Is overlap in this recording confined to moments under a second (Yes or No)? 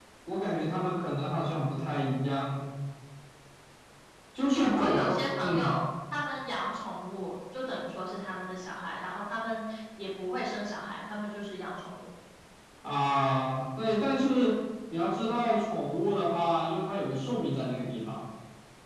No